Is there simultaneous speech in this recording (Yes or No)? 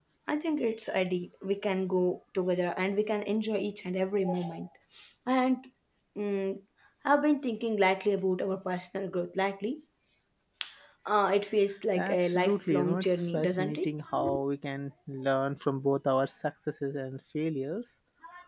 Yes